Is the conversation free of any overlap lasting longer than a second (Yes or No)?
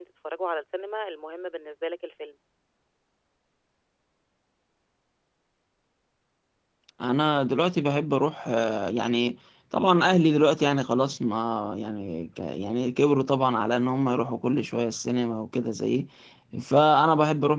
Yes